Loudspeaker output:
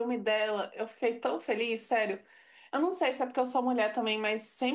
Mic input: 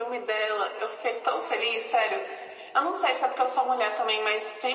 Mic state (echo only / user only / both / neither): echo only